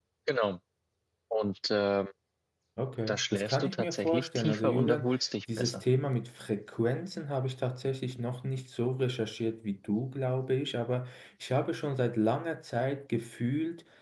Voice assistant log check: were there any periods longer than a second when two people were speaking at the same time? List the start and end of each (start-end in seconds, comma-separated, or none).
3.1-5.0